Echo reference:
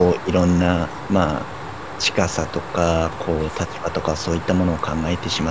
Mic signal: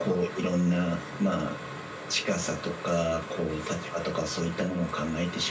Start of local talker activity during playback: none

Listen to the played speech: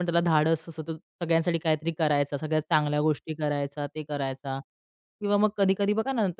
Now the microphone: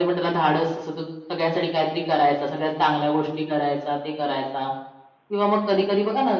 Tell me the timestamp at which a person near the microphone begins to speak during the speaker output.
none

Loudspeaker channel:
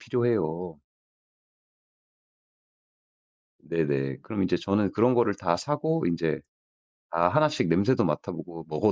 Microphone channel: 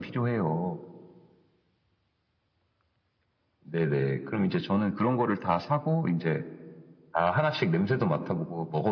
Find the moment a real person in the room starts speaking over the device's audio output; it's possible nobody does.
none

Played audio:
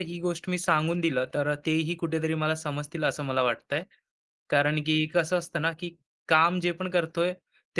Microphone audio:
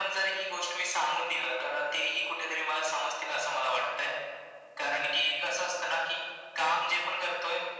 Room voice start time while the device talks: none

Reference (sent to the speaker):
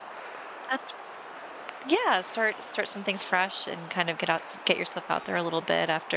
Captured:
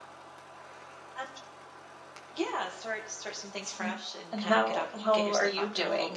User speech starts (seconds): 3.8 s

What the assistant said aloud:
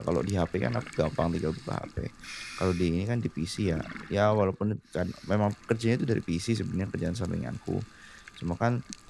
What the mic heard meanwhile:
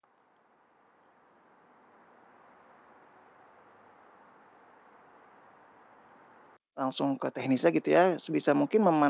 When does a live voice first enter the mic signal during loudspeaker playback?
6.8 s

